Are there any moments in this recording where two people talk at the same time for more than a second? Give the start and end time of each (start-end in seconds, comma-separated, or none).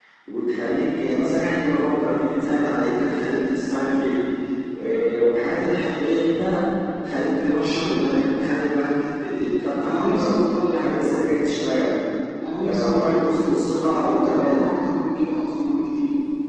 12.6-14.7